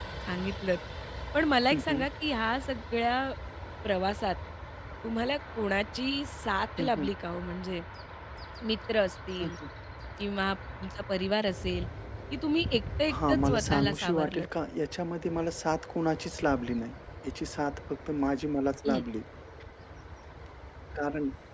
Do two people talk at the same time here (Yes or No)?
Yes